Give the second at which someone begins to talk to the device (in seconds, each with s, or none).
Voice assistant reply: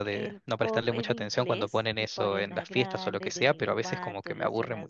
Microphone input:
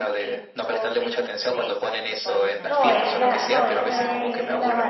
2.6 s